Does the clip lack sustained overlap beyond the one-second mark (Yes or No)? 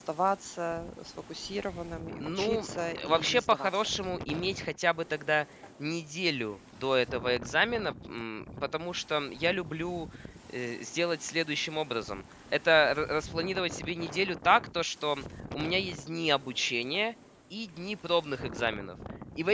No